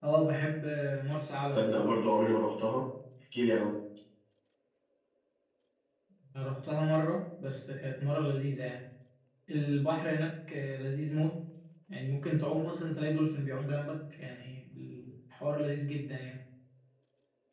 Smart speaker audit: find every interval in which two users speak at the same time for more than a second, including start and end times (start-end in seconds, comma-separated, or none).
none